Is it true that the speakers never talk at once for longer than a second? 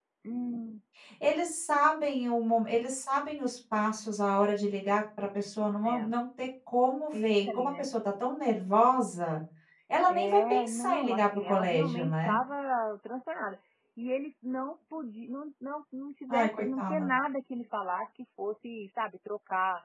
No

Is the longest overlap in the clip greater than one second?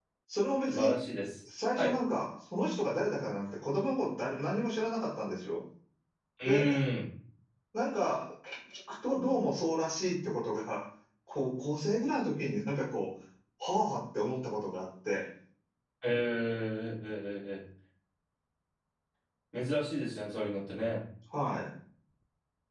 No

